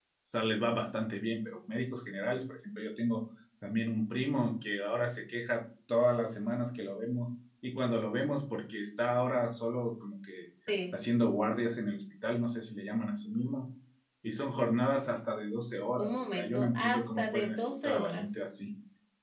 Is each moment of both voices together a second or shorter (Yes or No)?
No